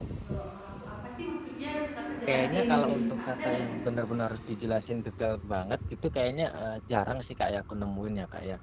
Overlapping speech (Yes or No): Yes